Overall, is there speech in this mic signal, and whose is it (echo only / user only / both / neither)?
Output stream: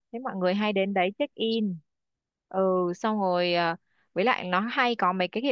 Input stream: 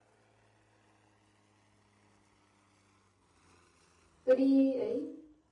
user only